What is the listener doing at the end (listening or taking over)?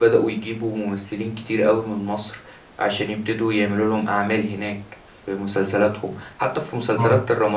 listening